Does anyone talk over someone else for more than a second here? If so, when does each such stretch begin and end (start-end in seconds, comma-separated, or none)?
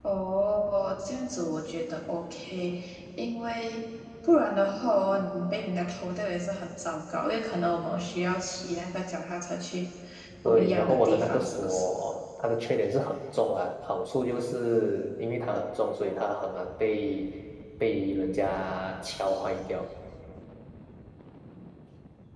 10.4-11.9